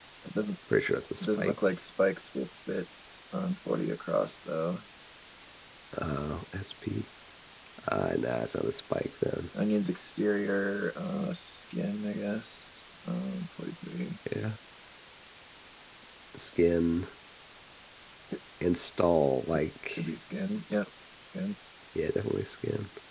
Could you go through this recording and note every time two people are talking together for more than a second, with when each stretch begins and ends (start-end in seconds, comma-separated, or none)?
none